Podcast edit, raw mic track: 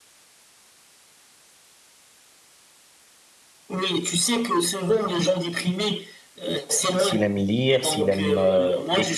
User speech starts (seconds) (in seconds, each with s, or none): 7.0 s